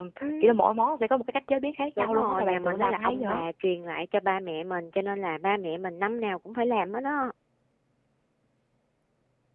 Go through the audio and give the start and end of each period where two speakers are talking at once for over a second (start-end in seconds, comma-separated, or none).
2.0-3.3